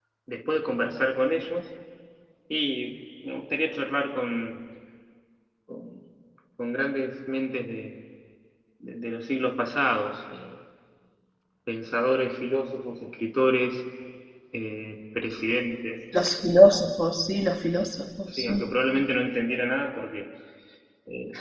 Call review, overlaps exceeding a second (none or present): none